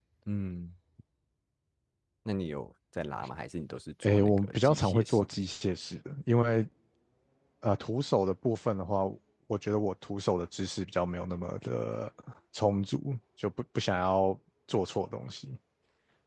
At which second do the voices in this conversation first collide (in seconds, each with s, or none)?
4.0 s